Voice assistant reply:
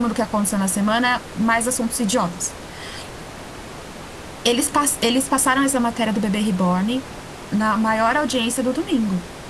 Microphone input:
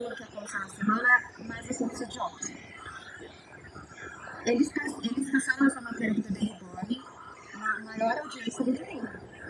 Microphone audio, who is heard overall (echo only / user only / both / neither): echo only